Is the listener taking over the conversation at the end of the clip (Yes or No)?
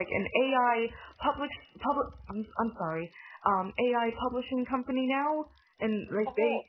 No